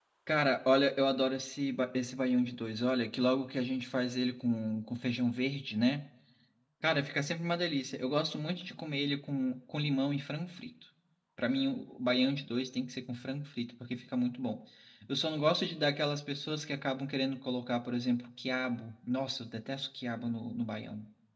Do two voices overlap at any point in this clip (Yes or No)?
No